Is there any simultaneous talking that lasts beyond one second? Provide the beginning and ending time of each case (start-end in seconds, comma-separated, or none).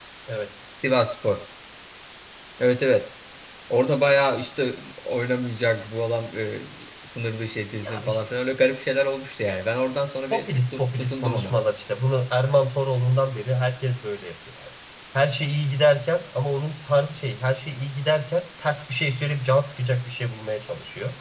10.3-11.5